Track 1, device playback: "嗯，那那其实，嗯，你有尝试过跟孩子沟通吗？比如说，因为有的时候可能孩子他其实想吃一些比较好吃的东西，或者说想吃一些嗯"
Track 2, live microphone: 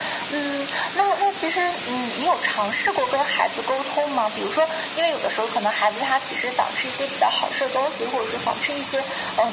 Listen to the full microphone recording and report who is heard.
echo only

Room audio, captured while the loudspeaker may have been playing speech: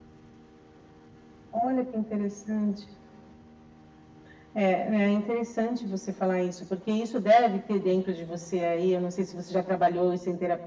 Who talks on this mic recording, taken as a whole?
echo only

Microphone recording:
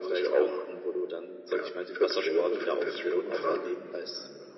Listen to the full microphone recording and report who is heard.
both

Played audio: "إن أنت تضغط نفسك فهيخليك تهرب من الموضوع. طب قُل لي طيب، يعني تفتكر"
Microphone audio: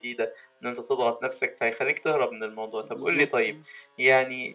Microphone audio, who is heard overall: both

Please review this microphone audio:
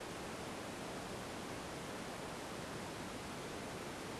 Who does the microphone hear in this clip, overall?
neither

